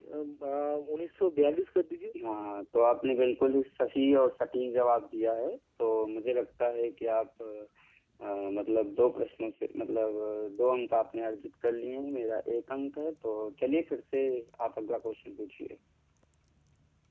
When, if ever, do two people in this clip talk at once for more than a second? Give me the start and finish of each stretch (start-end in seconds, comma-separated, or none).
none